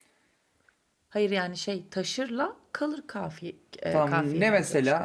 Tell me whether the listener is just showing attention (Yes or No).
No